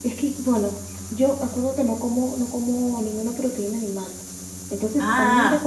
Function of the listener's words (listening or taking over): listening